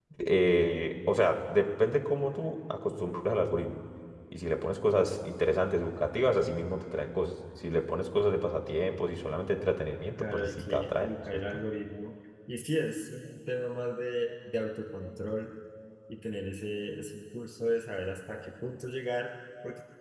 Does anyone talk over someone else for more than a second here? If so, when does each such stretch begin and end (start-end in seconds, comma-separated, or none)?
10.2-11.6